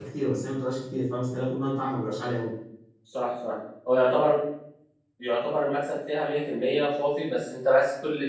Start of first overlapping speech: none

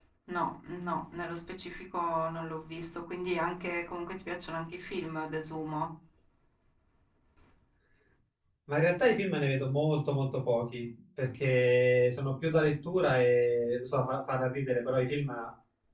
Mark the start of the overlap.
none

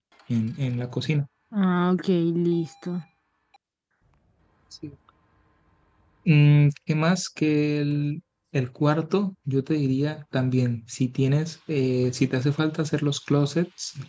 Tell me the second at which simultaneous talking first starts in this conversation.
none

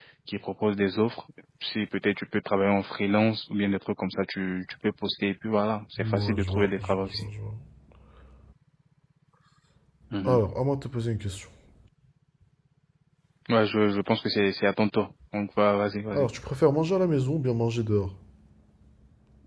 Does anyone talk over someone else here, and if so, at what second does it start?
6 s

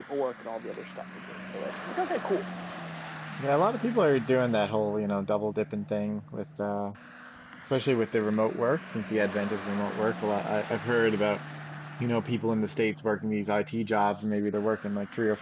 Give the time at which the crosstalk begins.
none

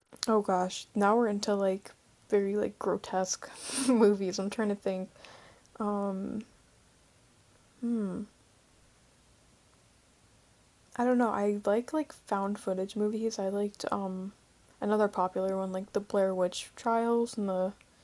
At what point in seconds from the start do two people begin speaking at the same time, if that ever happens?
none

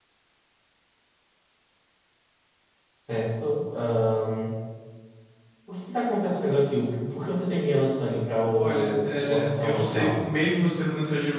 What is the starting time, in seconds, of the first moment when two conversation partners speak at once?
9 s

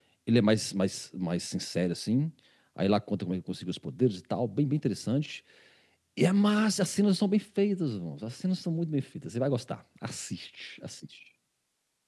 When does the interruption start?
none

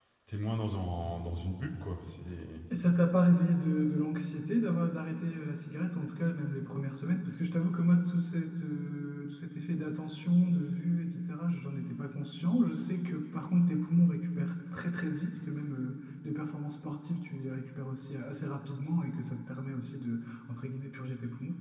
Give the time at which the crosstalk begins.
none

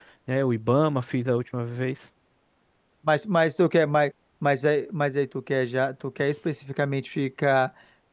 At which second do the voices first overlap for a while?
none

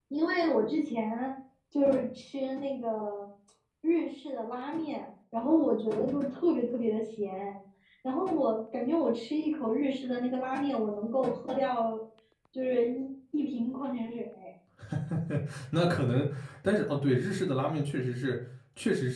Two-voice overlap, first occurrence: none

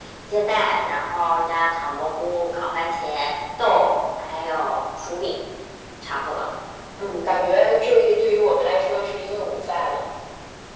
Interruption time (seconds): none

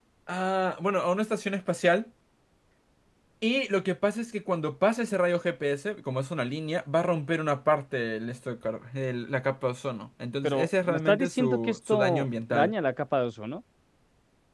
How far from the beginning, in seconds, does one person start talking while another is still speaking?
10 s

